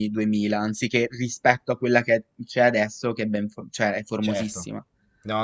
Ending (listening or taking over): taking over